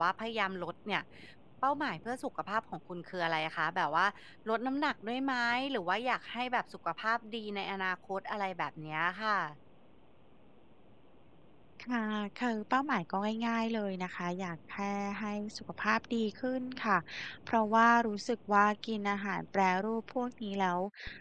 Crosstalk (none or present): none